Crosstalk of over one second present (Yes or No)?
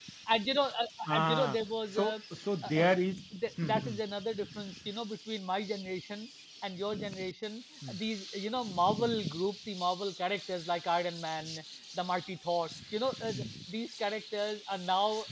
No